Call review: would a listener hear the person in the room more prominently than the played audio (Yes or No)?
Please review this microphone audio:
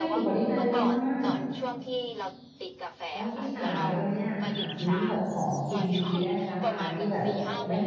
Yes